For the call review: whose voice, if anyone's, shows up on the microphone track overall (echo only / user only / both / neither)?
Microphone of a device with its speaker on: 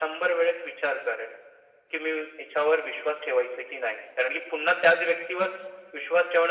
echo only